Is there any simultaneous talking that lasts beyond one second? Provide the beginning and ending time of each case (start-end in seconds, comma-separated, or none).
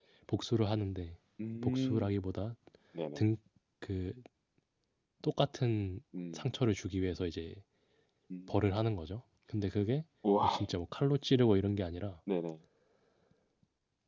none